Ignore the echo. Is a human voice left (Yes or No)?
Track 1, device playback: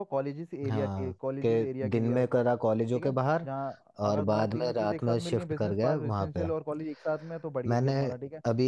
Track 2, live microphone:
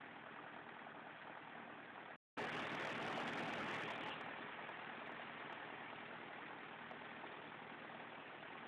No